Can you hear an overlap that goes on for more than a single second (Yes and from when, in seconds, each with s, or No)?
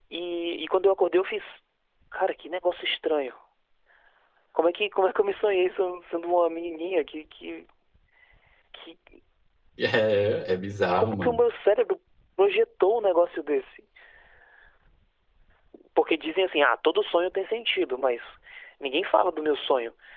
No